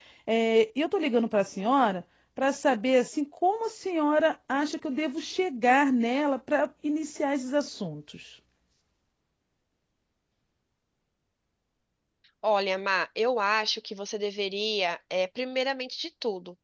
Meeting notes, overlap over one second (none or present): none